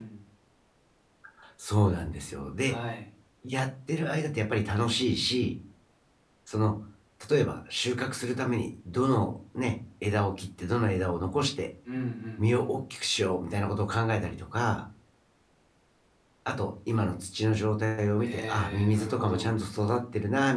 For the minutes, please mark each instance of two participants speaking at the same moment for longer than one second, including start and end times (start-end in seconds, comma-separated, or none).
18.2-19.6